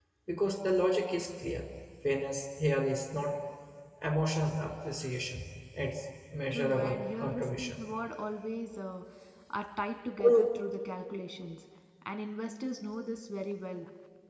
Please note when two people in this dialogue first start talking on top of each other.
6.5 s

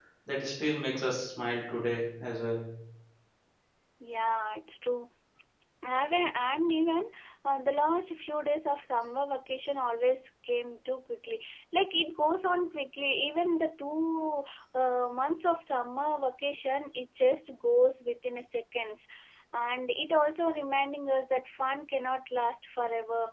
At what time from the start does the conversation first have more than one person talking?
none

